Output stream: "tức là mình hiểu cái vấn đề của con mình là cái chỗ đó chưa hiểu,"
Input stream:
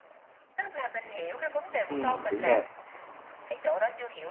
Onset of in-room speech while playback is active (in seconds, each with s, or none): 1.9 s